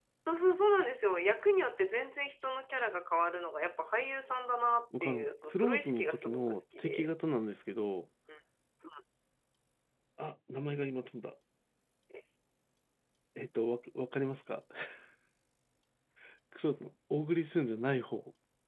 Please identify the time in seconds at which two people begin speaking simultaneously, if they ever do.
4.9 s

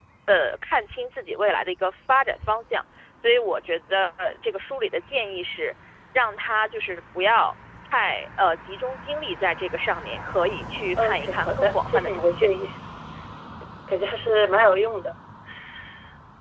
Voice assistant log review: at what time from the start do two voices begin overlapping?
11.0 s

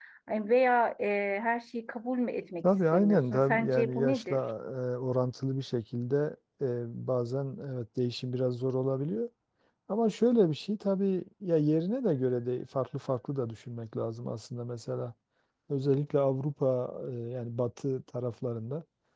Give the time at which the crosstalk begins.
2.9 s

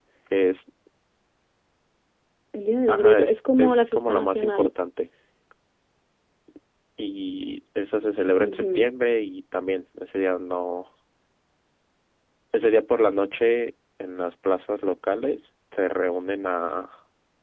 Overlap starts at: 2.9 s

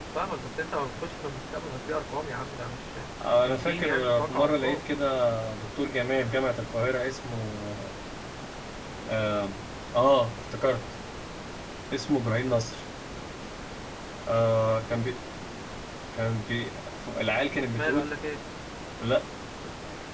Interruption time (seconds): 3.5 s

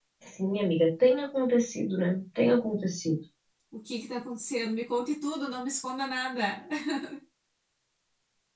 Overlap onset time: none

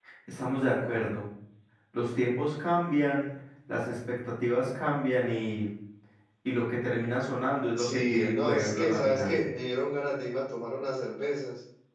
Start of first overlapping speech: 7.7 s

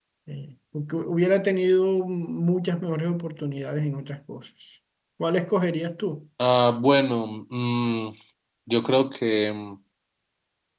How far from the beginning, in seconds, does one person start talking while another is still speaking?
none

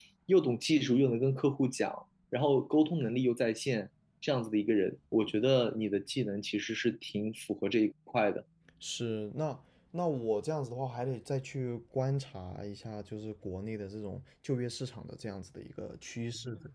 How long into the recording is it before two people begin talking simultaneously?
none

